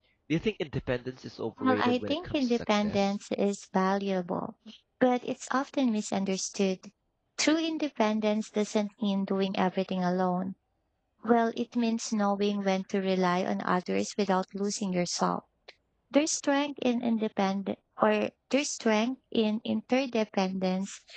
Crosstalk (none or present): present